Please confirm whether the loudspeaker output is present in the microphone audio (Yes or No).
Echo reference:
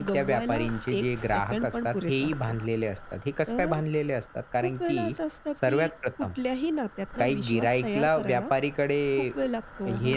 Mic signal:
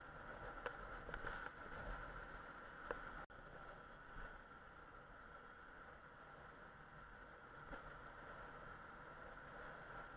No